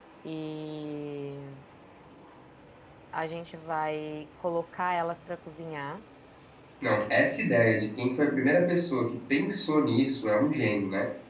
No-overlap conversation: Yes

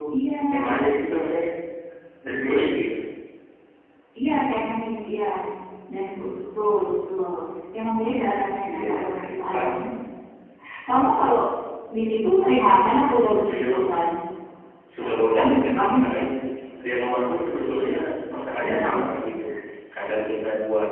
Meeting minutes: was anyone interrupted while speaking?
Yes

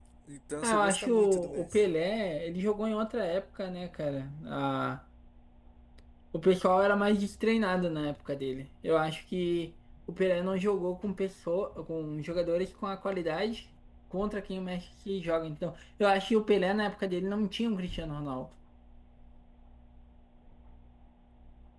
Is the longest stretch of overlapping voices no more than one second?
No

